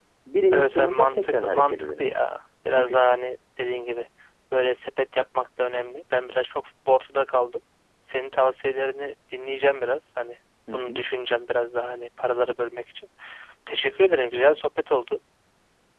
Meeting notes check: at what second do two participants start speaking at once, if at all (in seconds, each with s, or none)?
0.5 s